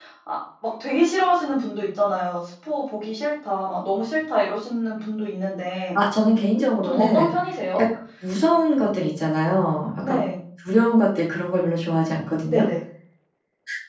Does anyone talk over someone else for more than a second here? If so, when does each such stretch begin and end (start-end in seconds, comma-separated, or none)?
none